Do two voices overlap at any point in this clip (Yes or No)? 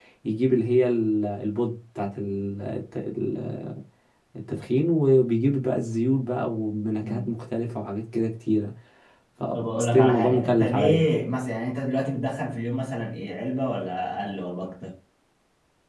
Yes